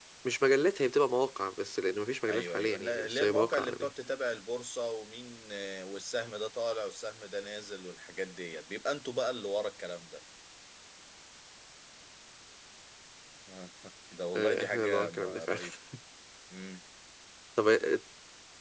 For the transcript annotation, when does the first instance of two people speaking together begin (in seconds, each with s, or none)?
2.3 s